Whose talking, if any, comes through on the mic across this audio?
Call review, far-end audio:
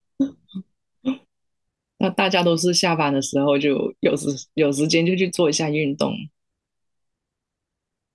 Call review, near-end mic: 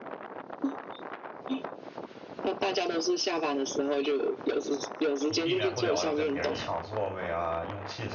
both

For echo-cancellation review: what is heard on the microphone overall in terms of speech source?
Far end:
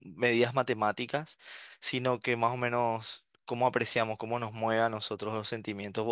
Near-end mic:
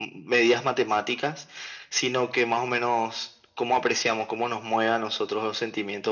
echo only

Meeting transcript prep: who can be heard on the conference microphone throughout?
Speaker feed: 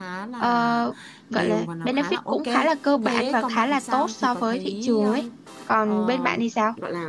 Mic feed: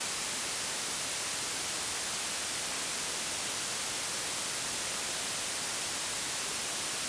neither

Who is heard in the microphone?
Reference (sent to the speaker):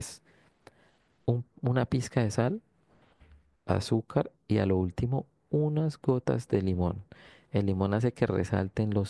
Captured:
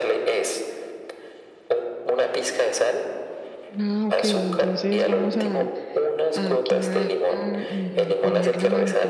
both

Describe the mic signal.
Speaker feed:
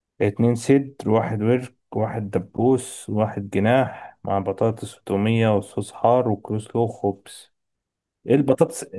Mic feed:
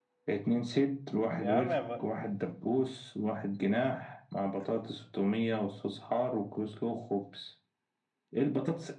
both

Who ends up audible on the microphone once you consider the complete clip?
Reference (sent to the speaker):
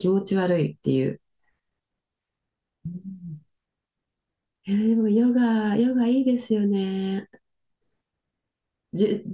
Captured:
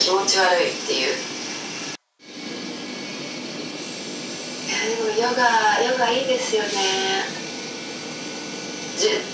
echo only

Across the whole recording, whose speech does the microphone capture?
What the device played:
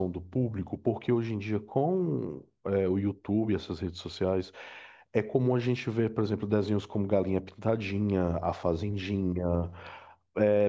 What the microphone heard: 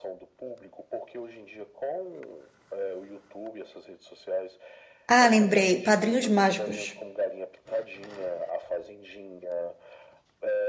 both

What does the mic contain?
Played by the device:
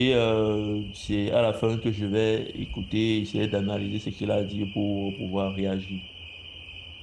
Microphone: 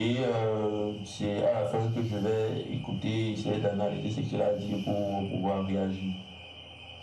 echo only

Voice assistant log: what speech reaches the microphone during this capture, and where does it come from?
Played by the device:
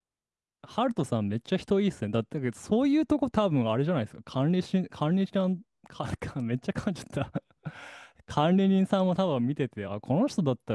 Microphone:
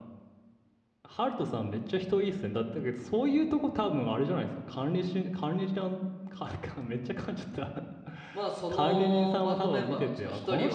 both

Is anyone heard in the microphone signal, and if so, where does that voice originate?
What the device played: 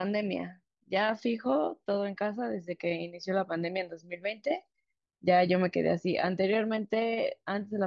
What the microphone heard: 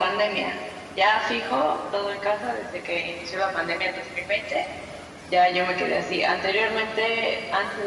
echo only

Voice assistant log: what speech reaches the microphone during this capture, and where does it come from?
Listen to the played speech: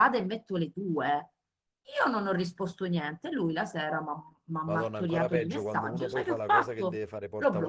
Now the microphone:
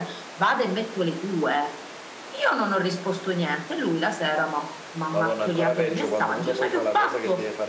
echo only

